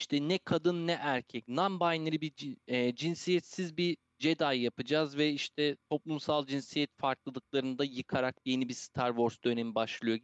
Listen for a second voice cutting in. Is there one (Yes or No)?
No